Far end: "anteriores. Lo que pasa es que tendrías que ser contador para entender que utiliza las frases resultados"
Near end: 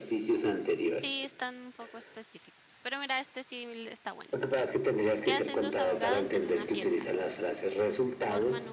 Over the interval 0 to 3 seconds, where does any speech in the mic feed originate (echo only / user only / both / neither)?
both